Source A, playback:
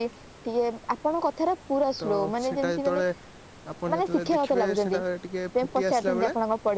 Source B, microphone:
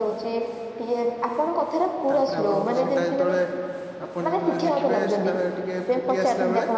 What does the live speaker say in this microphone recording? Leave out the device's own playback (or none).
ତାପରେ ଆପଣଙ୍କର